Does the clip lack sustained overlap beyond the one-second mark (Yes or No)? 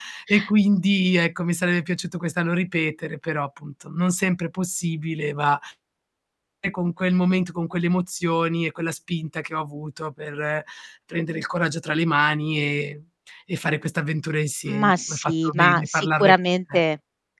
No